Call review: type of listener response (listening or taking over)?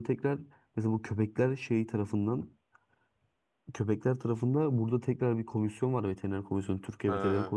listening